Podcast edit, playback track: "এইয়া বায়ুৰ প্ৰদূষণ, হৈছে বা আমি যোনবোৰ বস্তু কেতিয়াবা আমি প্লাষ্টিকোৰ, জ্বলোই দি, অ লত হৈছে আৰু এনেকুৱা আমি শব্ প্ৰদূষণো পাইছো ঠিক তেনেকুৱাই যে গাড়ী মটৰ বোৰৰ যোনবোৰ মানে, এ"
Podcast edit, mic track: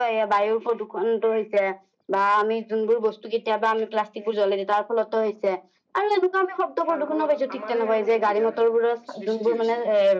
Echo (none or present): present